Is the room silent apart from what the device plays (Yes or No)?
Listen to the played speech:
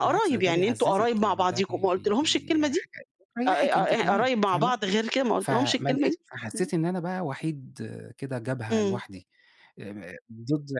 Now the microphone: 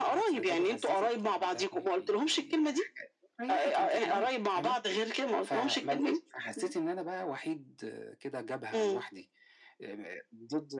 Yes